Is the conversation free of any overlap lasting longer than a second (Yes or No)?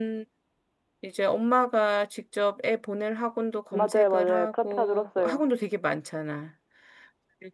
No